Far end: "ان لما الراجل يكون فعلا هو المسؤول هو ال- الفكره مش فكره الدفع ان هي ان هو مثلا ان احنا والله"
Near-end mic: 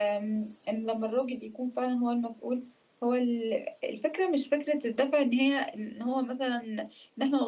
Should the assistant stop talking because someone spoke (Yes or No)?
No